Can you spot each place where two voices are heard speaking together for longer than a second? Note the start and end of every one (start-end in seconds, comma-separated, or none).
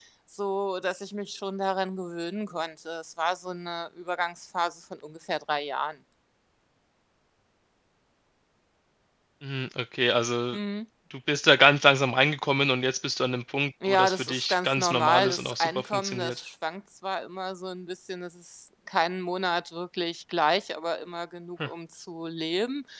13.9-16.4